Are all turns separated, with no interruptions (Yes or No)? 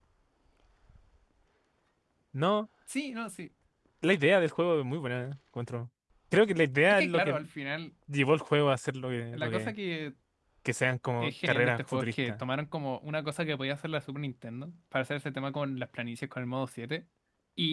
No